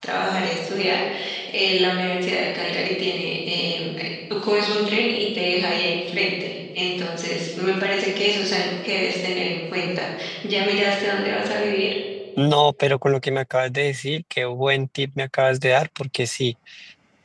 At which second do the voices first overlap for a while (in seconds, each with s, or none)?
none